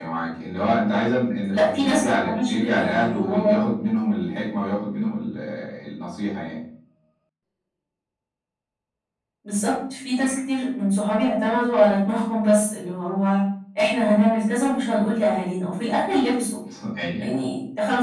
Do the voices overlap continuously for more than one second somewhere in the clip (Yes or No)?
Yes